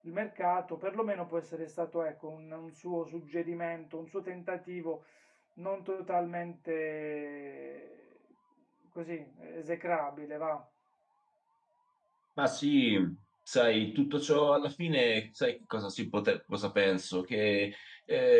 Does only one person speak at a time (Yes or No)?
Yes